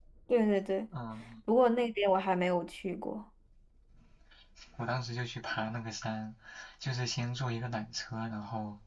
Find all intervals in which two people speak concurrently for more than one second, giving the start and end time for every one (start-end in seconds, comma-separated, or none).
none